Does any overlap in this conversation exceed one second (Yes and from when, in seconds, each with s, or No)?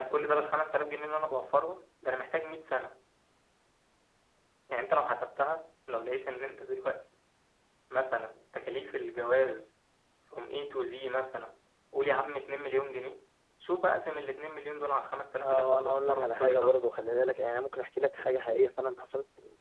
Yes, from 15.4 s